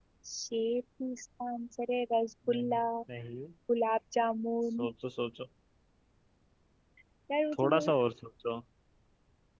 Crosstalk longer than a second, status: none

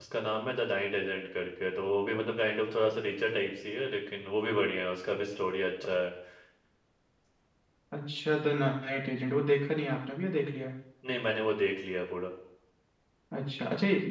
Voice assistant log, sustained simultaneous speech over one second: none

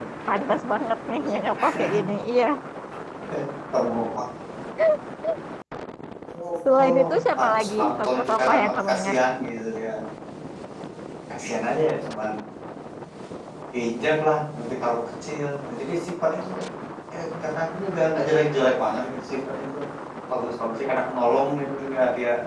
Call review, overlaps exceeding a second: present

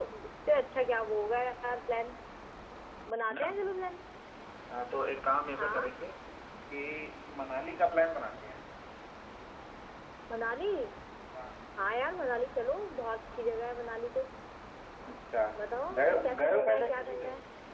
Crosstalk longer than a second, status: present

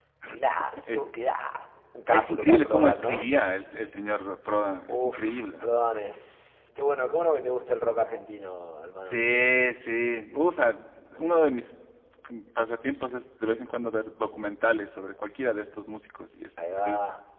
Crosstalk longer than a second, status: present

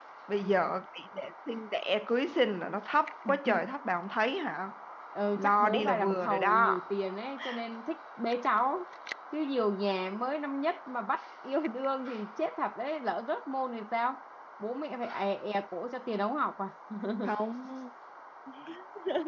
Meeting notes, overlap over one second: present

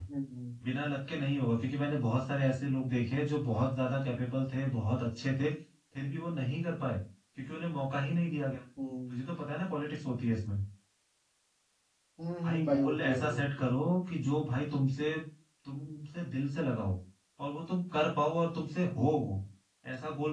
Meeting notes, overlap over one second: present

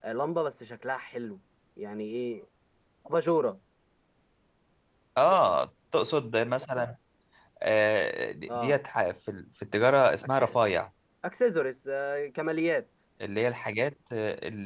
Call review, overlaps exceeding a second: none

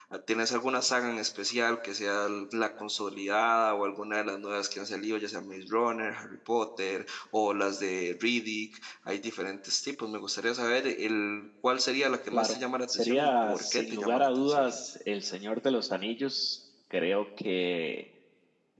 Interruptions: present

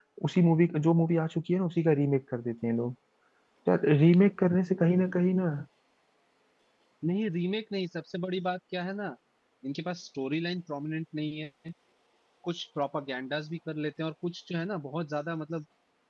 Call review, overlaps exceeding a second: none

